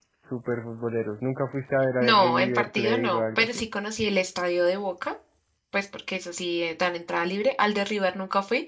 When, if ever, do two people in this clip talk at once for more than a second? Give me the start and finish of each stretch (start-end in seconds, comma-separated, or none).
2.0-3.6